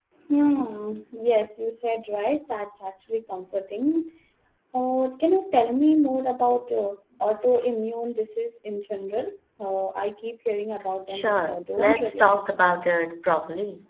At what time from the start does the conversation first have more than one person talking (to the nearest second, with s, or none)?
11 s